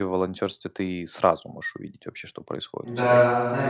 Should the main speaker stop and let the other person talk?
Yes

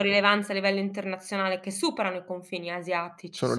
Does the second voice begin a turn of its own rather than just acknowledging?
No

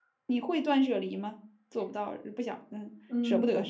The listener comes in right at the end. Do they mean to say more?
Yes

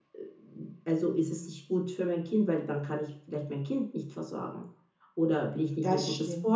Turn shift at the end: No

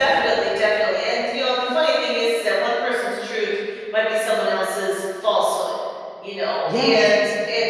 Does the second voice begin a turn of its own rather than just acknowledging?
No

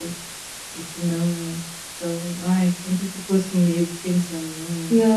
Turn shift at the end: Yes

